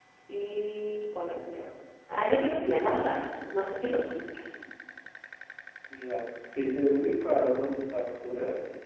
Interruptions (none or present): none